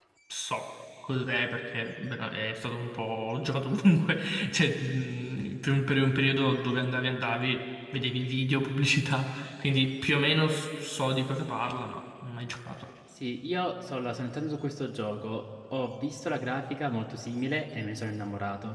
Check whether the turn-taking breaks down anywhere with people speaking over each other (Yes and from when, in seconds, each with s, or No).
No